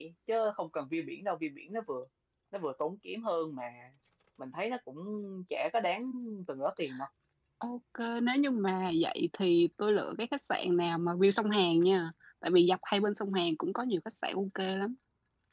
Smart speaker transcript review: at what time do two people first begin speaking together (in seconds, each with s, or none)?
none